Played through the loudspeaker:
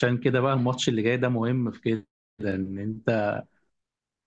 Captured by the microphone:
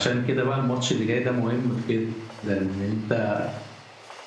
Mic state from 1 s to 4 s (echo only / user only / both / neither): echo only